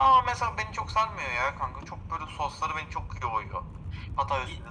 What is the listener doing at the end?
listening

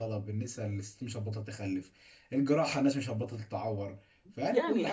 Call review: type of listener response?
taking over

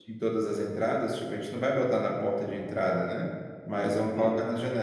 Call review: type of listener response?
listening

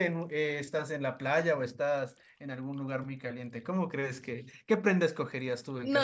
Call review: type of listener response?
taking over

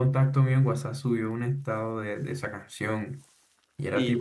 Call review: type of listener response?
listening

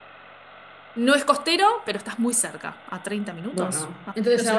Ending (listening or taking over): taking over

